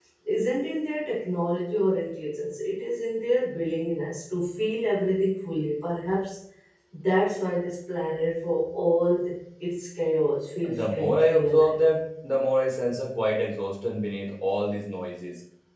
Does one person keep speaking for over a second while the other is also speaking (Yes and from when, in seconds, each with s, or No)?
Yes, from 10.6 s